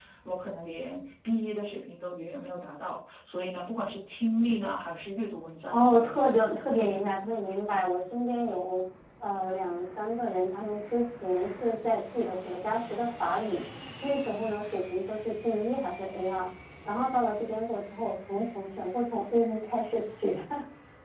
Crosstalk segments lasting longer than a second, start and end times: 5.7-7.1

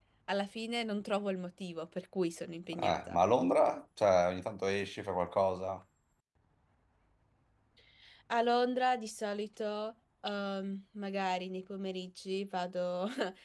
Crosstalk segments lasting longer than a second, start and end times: none

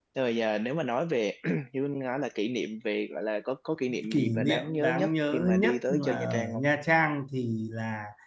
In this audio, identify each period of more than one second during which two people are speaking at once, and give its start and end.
4.1-6.6

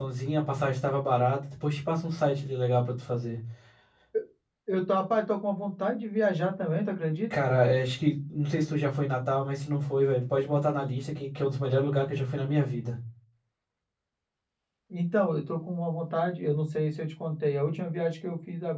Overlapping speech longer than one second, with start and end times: none

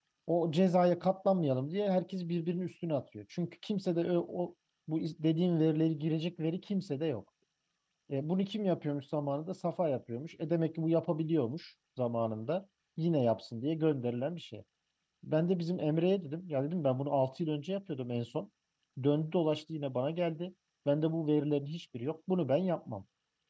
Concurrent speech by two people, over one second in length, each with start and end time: none

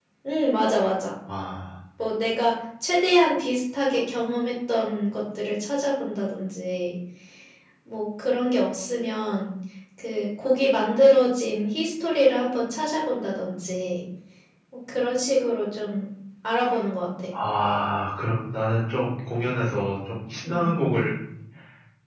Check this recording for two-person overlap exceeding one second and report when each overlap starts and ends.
none

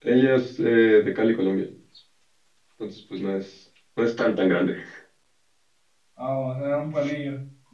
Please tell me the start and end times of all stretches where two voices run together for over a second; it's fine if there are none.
none

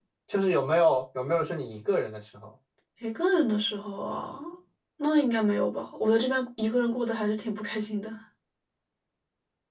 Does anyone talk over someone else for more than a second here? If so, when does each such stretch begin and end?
none

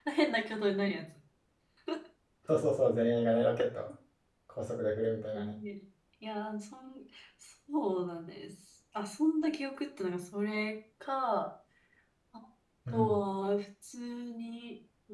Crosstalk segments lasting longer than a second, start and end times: none

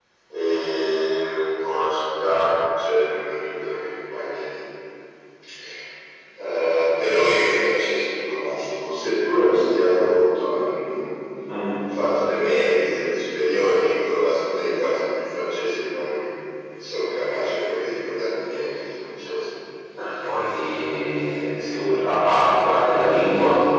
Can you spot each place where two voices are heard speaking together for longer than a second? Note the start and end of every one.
none

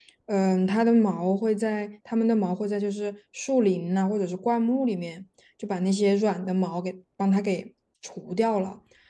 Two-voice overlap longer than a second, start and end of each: none

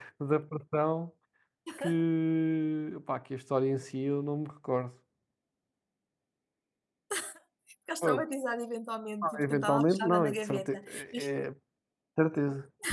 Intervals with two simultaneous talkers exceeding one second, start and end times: 9.2-11.2

